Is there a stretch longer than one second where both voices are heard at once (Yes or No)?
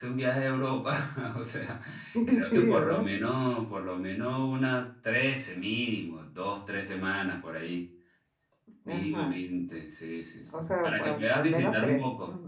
Yes